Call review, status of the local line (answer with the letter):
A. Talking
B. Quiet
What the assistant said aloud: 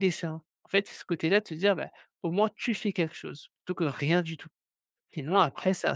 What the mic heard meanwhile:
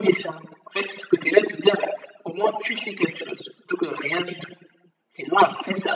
B